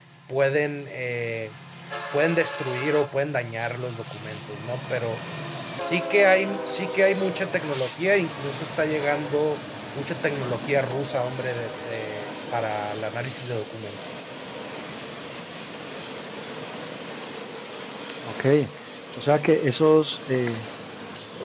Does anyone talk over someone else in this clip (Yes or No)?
No